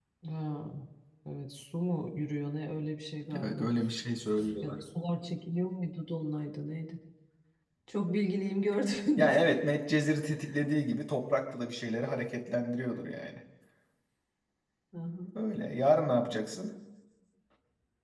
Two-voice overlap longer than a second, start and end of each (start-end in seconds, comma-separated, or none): none